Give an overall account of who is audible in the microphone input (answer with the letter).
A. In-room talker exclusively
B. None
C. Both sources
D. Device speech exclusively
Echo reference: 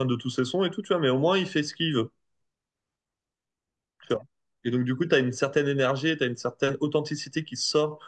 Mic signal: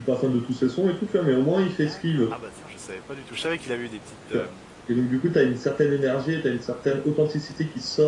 C